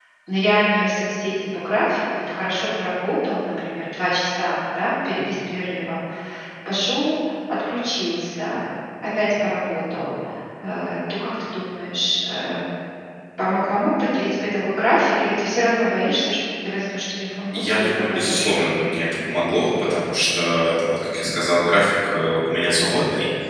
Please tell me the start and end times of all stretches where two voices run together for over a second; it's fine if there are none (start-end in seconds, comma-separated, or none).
17.5-18.8